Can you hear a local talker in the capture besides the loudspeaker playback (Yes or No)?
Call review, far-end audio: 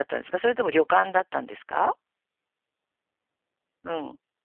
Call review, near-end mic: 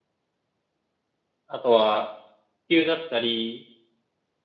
Yes